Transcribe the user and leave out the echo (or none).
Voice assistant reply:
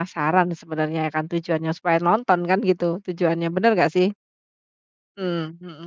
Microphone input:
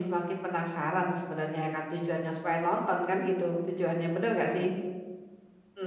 none